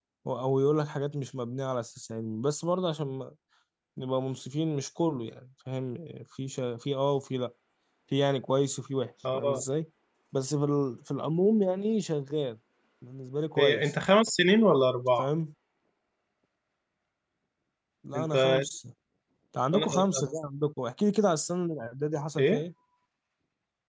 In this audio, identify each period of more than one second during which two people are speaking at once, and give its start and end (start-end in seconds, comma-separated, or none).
none